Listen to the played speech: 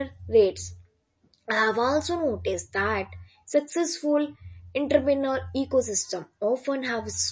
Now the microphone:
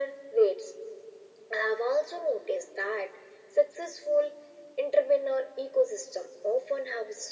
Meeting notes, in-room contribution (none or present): none